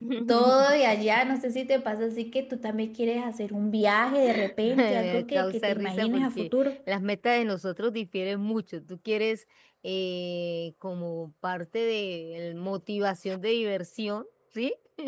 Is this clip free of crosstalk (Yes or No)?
No